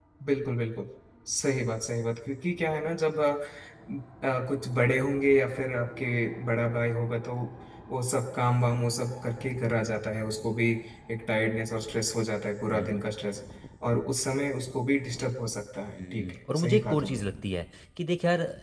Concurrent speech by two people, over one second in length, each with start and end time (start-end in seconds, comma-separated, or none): 15.9-17.2